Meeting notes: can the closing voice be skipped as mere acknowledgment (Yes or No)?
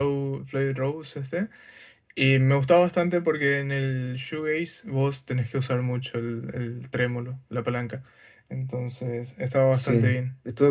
No